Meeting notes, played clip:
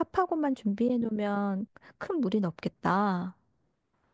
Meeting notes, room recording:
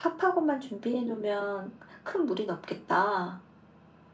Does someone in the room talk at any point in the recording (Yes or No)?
No